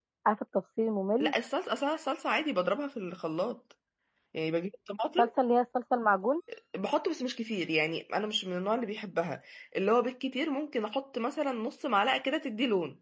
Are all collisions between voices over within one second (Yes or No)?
Yes